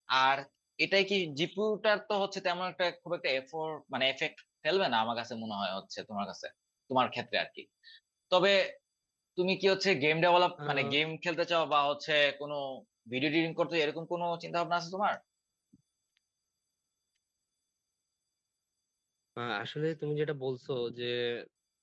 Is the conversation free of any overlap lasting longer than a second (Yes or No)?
Yes